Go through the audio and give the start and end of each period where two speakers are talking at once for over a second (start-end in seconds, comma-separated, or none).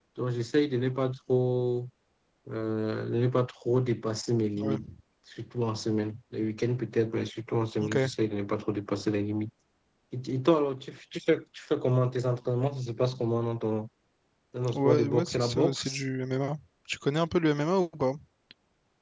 14.7-16.0